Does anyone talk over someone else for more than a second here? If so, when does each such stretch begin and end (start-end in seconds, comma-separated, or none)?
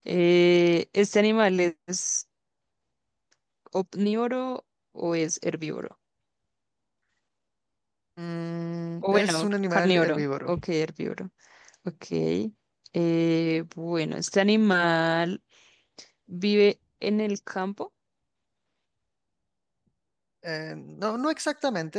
9.0-10.5